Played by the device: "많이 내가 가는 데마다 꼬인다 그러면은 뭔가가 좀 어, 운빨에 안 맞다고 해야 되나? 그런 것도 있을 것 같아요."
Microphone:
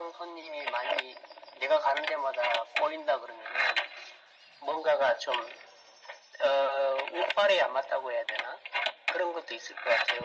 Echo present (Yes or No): Yes